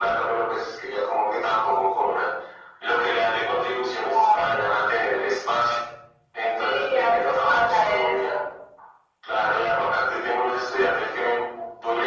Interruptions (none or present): present